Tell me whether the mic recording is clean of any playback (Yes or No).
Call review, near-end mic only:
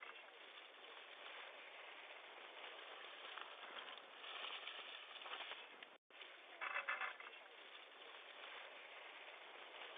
Yes